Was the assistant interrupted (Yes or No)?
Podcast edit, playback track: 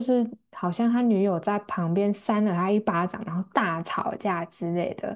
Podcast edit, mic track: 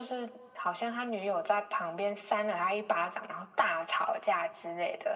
No